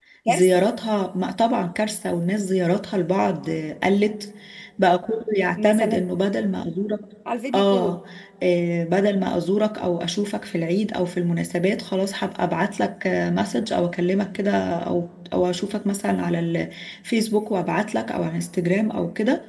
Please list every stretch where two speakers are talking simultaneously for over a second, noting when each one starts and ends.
none

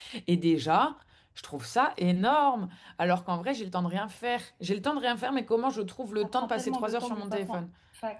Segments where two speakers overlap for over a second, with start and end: 6.2-7.6

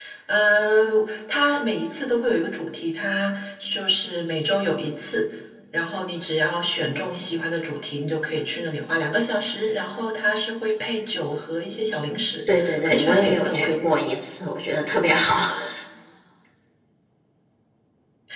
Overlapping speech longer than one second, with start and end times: 12.6-13.8

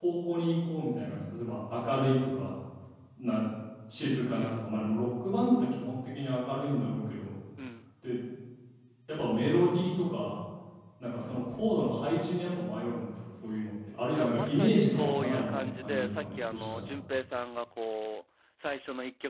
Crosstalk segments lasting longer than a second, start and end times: 14.2-16.9

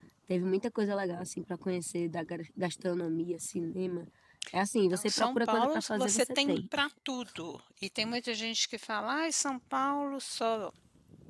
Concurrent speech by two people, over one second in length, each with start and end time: 4.9-6.6

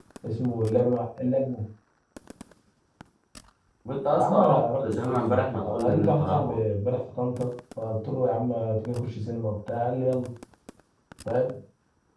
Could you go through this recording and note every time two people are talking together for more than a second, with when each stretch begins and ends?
4.1-6.6

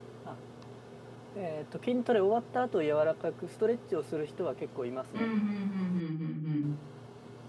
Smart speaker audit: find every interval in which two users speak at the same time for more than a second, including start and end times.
none

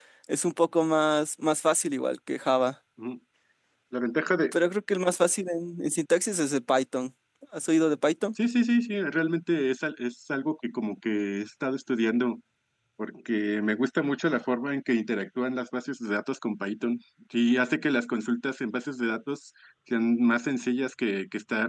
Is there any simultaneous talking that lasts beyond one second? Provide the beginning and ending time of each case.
none

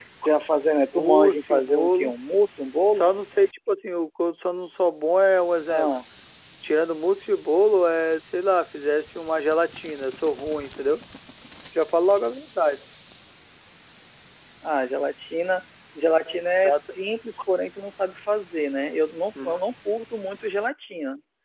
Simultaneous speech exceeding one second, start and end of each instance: 1.0-2.2

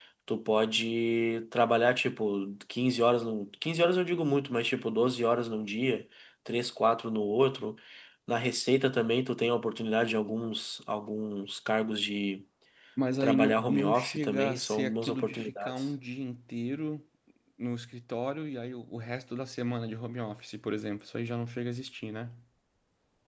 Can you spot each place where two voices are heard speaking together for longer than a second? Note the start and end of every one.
13.2-15.7

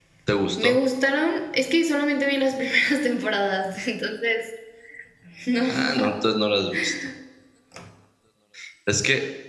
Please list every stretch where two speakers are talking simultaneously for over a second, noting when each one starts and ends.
none

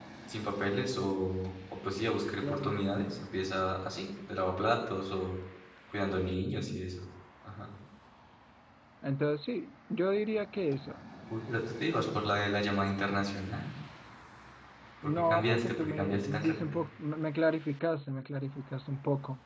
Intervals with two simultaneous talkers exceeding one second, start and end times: 15.0-16.9

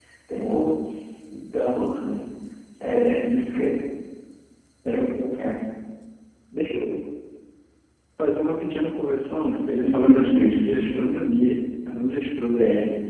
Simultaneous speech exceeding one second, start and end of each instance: 9.8-11.1

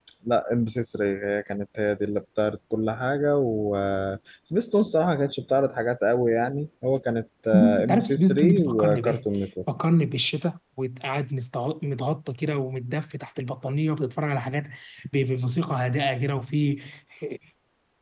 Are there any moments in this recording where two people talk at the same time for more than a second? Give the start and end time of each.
7.5-9.2

